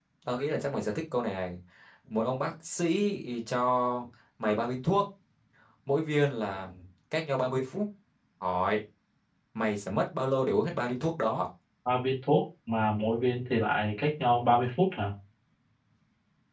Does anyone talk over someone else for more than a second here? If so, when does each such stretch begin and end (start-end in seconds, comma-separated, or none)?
none